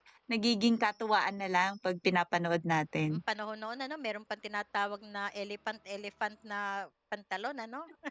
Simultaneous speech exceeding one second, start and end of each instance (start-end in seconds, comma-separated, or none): none